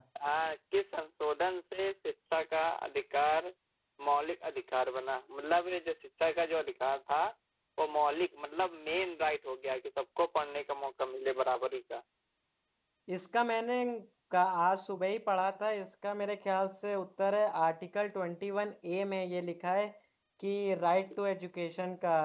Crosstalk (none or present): none